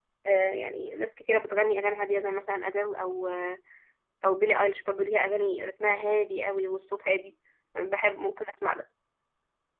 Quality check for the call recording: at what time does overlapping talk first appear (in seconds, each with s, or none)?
none